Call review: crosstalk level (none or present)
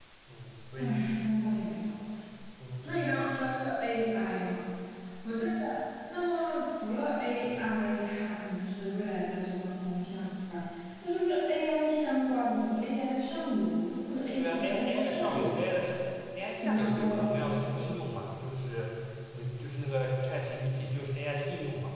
present